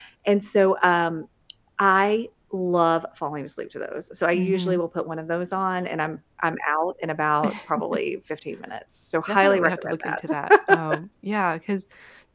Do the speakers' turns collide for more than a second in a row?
Yes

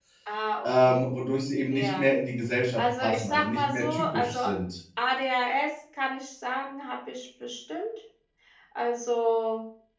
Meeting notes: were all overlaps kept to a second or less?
No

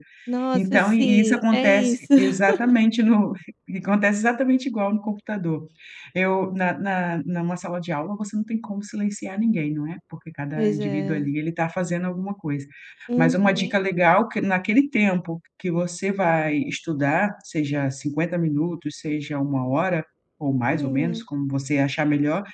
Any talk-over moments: Yes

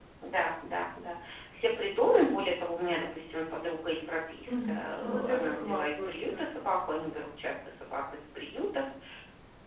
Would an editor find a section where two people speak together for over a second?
Yes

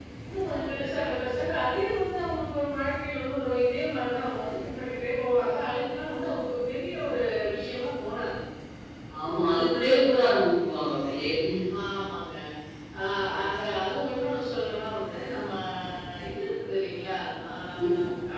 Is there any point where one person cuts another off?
No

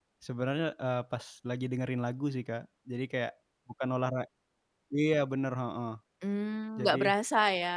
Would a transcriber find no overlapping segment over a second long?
Yes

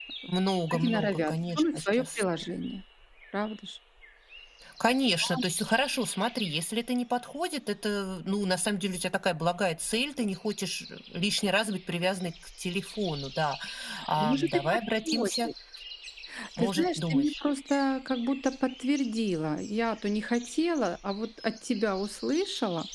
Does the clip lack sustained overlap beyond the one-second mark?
No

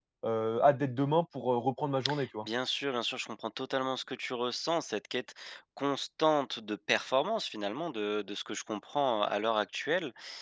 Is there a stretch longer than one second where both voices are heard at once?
No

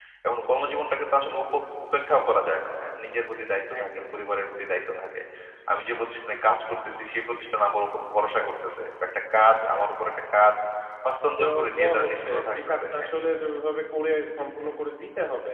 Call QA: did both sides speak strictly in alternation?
No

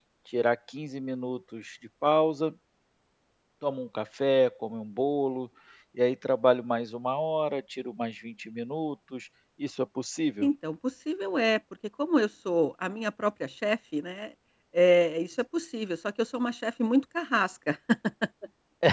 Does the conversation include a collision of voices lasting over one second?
No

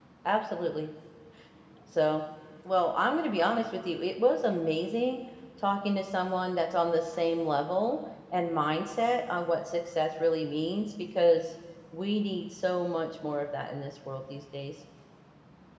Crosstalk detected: No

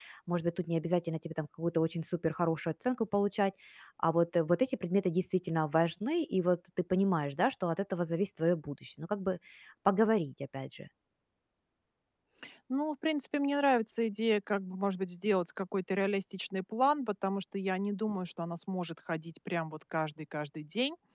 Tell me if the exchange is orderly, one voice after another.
Yes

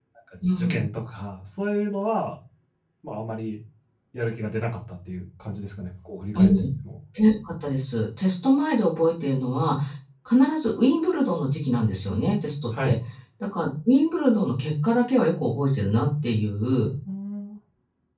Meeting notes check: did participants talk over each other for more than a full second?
No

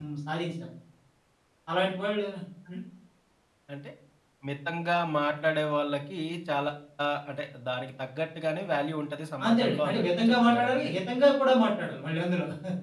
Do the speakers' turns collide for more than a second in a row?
Yes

